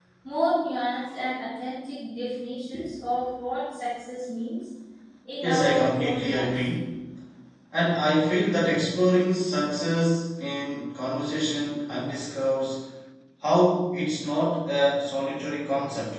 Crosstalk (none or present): present